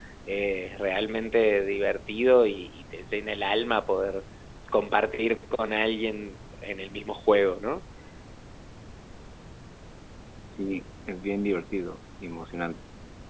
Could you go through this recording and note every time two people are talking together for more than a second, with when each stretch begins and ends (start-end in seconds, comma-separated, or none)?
none